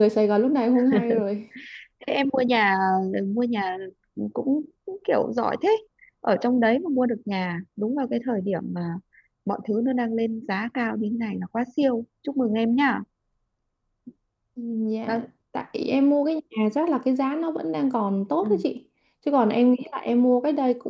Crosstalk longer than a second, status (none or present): none